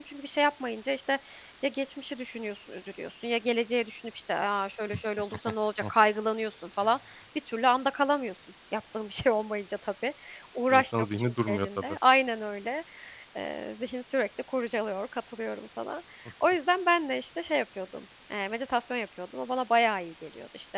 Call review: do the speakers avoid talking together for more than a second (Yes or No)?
No